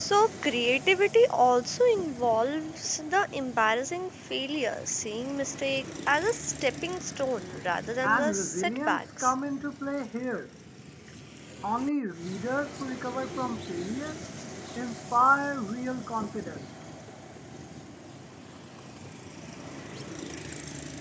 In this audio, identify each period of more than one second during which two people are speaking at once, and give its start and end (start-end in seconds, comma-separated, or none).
8.0-9.3